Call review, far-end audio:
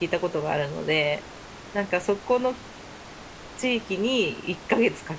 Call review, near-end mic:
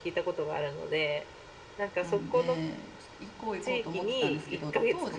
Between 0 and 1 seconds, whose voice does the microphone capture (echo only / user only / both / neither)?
echo only